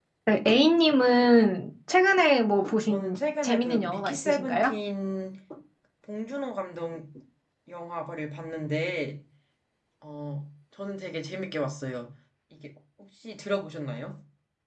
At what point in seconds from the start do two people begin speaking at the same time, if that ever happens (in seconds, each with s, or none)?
2.6 s